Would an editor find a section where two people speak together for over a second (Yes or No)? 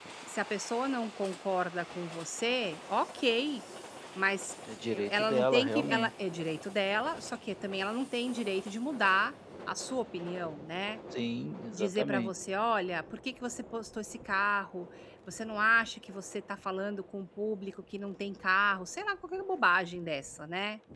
Yes